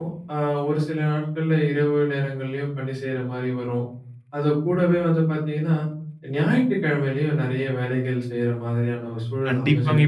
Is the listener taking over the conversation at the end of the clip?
Yes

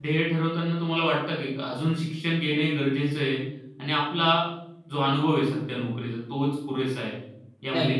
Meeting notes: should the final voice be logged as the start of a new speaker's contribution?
Yes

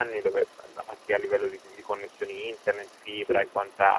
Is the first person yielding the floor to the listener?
No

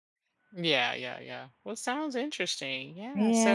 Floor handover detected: Yes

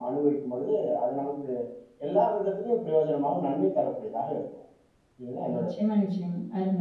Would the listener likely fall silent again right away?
No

